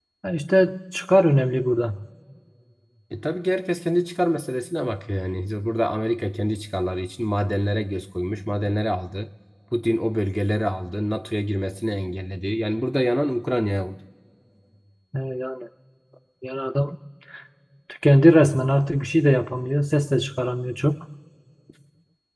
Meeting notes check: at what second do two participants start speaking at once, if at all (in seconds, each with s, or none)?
none